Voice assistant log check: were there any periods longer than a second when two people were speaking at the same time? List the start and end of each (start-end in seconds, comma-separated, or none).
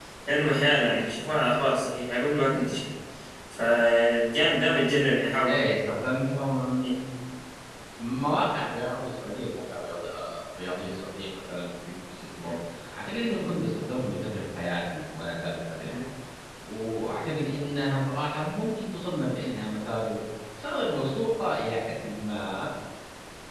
none